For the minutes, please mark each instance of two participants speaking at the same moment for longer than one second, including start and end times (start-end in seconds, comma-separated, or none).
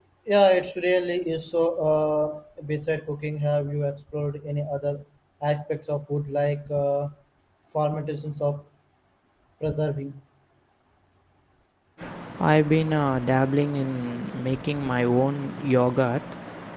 none